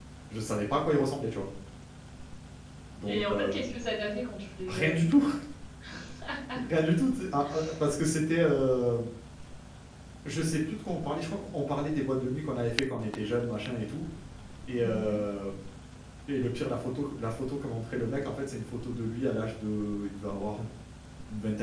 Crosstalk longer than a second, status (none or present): none